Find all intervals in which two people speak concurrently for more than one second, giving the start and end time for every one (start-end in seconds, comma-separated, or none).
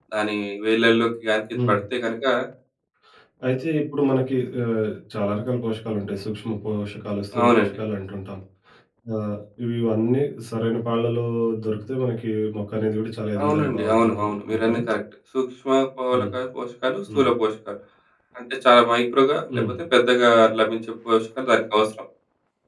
13.4-14.8